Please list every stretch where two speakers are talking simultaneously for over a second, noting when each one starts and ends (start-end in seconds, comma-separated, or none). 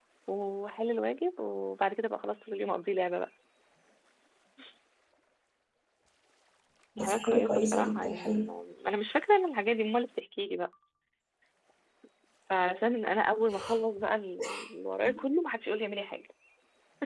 7.0-8.2